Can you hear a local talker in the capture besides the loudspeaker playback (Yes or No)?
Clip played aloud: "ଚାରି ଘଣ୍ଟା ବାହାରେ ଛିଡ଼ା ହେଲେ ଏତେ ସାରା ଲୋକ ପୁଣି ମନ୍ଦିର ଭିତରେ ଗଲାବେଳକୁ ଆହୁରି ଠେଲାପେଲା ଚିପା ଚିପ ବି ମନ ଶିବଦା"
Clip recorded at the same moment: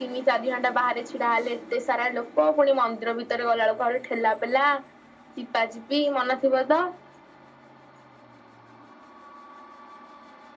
No